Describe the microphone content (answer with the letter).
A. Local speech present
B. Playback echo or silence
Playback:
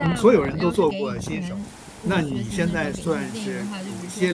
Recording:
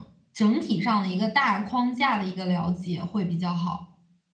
A